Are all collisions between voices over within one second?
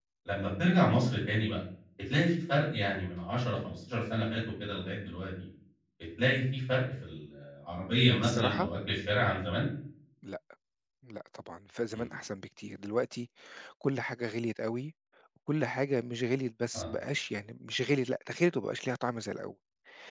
Yes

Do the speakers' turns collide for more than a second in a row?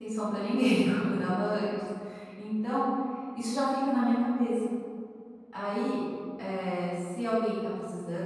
No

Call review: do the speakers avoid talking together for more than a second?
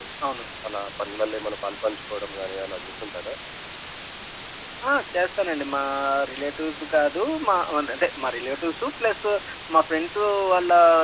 Yes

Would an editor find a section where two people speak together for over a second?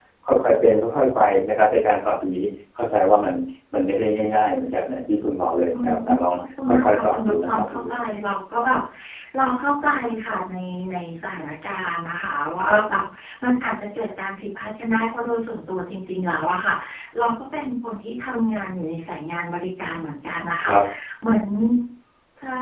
Yes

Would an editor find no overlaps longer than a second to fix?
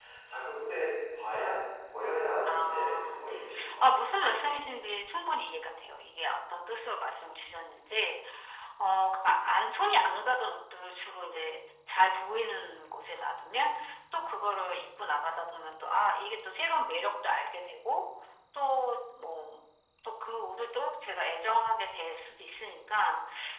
No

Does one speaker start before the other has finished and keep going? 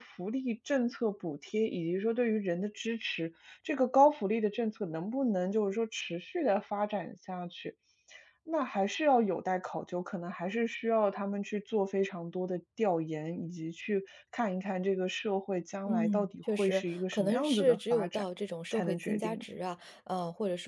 Yes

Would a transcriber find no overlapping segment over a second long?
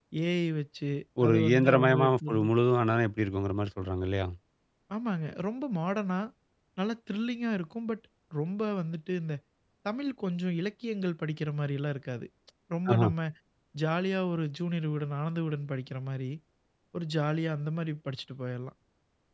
No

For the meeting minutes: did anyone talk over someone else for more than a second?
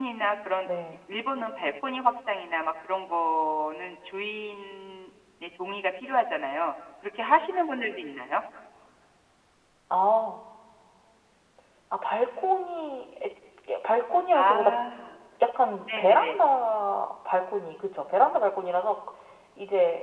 No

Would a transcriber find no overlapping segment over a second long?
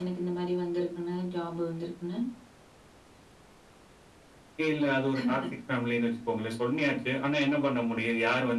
Yes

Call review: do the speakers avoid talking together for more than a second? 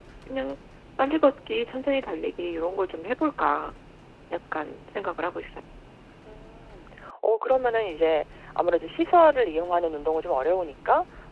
Yes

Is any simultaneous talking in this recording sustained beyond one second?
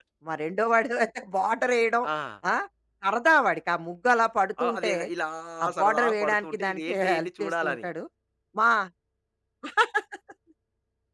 Yes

